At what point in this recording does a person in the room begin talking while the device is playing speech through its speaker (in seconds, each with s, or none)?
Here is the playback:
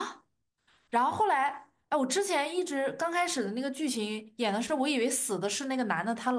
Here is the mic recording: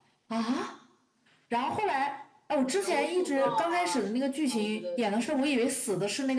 2.7 s